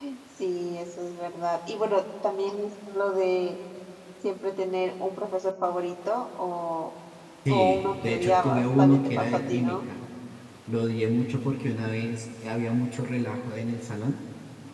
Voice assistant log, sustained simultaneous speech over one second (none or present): present